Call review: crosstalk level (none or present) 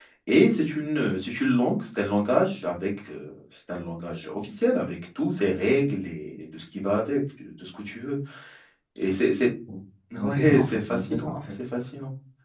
present